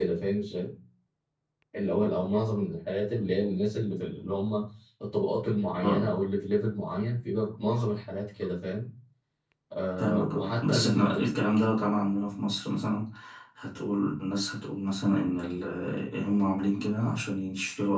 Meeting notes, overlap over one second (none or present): present